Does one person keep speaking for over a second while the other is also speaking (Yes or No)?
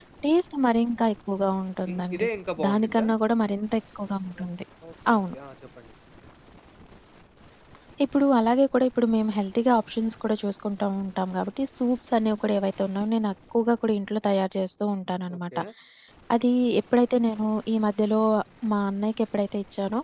No